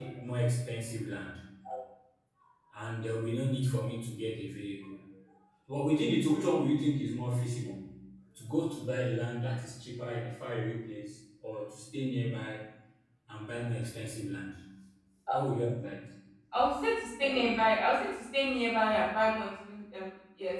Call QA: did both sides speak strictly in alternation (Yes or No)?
Yes